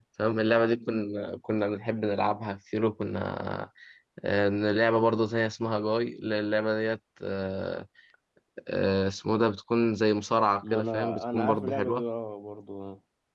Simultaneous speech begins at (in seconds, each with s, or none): 10.6 s